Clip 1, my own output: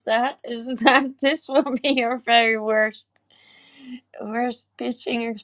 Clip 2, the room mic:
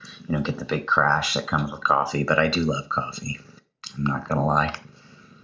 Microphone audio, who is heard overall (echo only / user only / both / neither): user only